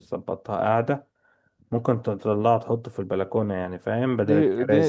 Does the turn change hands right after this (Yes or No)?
Yes